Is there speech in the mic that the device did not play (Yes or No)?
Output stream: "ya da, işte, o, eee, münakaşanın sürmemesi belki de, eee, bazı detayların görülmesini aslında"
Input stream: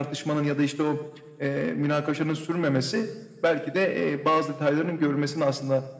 No